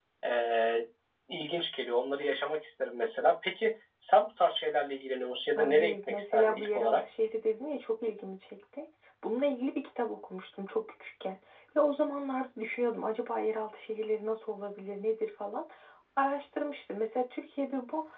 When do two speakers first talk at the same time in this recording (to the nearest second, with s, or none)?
6 s